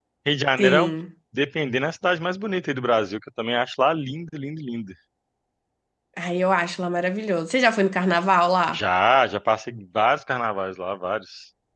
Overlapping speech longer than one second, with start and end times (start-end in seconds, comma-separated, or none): none